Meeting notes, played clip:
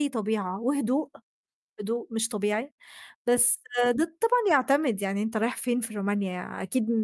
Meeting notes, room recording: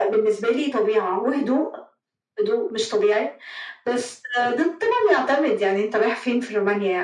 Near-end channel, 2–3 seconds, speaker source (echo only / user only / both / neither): echo only